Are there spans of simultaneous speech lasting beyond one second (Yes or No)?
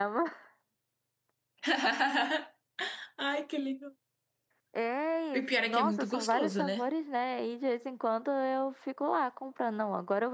Yes